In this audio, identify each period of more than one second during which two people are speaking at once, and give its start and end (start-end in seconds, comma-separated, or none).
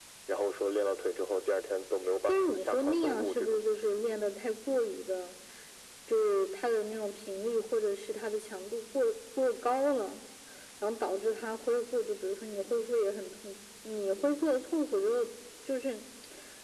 2.3-3.6